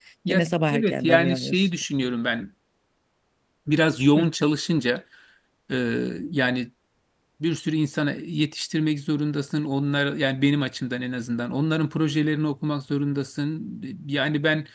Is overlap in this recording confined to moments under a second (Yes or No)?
No